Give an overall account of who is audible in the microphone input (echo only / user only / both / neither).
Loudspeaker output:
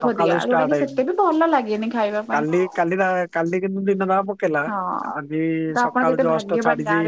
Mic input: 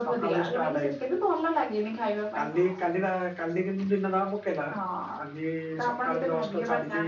echo only